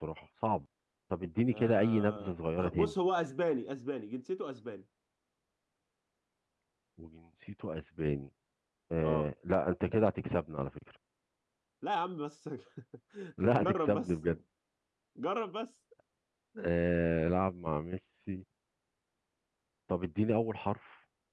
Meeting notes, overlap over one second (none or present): present